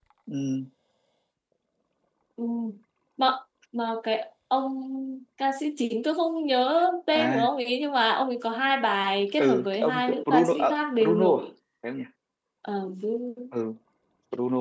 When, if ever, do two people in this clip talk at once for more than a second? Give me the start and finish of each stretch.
9.4-11.4

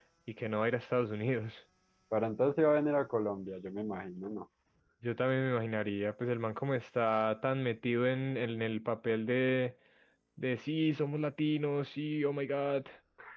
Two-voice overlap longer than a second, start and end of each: none

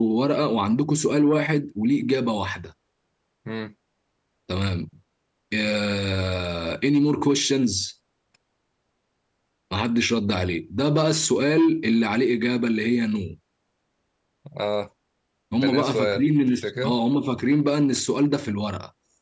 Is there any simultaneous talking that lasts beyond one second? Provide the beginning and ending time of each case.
15.6-17.0

